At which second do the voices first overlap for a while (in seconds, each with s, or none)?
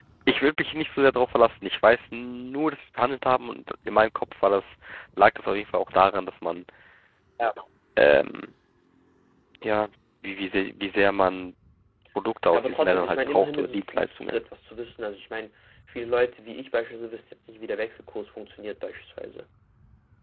12.5 s